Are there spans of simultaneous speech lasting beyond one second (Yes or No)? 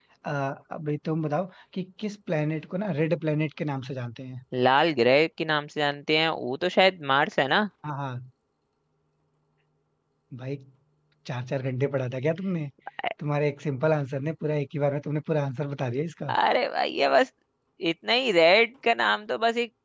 No